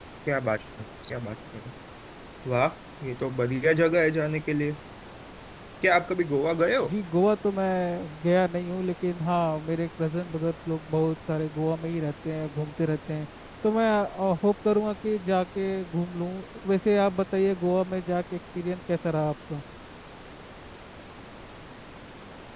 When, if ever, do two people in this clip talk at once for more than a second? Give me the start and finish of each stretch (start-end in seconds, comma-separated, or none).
none